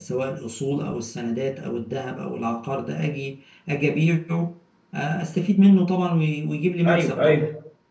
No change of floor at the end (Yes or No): No